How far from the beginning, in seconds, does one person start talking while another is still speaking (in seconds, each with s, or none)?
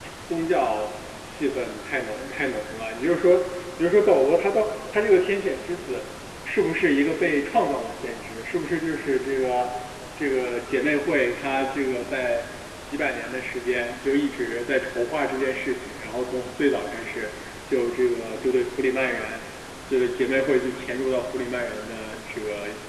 none